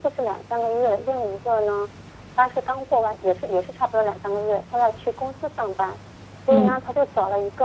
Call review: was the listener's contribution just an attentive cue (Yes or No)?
Yes